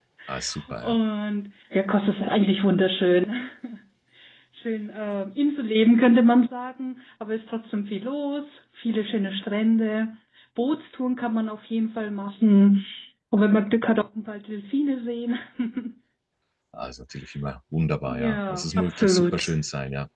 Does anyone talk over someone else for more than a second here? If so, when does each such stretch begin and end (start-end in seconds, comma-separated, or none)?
18.1-19.4